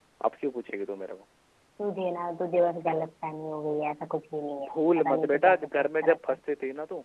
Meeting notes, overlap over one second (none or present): present